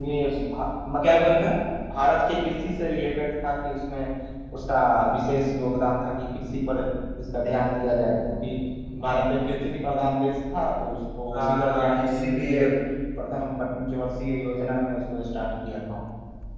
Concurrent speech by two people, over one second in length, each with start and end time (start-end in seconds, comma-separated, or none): 11.3-12.6